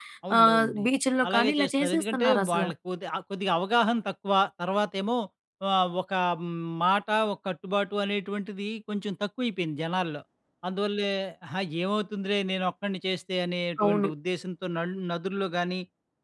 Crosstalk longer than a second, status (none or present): present